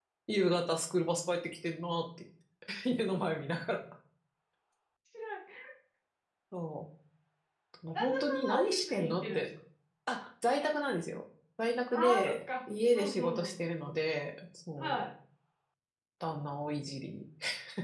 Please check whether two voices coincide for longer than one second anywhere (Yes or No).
Yes